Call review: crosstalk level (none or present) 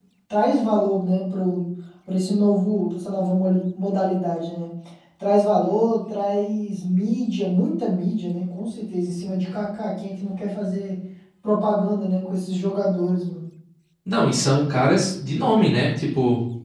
none